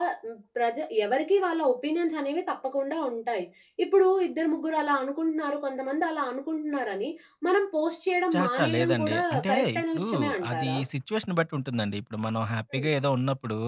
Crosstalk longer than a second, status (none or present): present